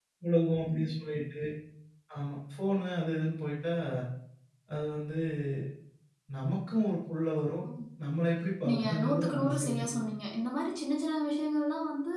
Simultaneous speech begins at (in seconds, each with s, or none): 8.7 s